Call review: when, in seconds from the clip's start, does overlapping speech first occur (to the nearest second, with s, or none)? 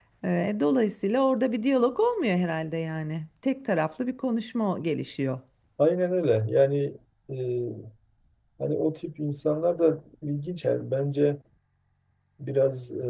none